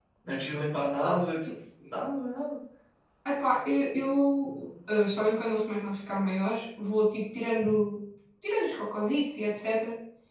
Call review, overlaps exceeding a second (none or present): none